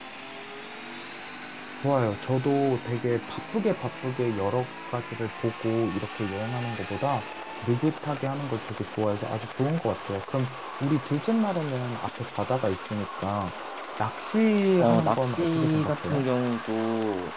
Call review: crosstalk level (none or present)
present